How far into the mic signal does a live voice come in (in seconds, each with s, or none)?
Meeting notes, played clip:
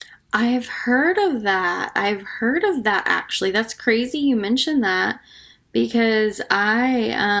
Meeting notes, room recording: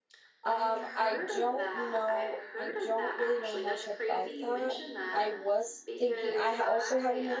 0.4 s